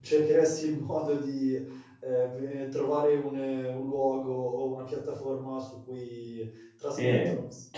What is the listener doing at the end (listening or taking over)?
taking over